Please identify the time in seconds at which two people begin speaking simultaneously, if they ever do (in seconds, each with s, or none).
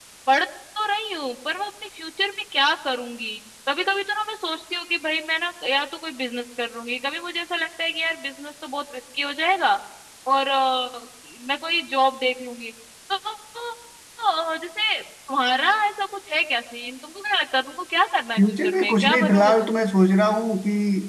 18.4 s